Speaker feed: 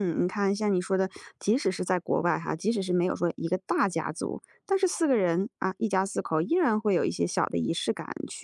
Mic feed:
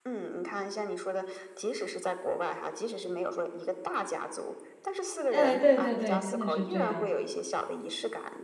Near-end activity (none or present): present